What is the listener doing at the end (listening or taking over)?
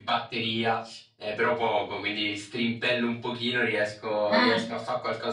listening